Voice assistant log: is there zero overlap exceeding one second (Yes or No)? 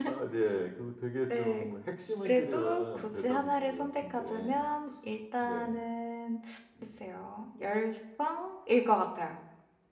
No